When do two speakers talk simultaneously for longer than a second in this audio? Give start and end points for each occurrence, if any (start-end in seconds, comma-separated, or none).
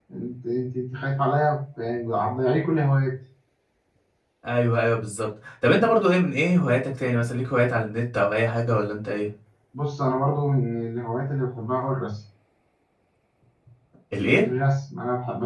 none